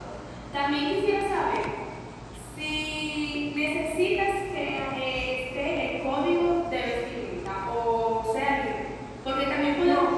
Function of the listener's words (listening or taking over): listening